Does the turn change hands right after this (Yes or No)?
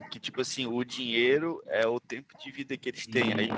No